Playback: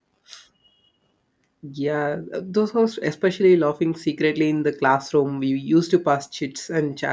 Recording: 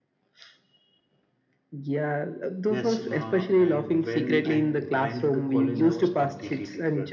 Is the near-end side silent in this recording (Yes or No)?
No